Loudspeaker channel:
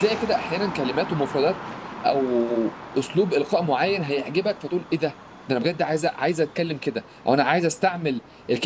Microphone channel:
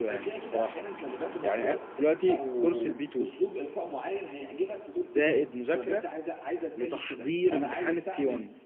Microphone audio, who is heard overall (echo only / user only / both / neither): both